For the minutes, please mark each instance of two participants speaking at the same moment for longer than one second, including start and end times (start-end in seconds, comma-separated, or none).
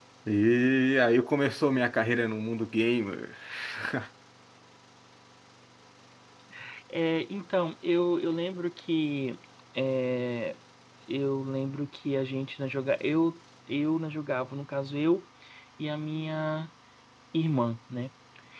none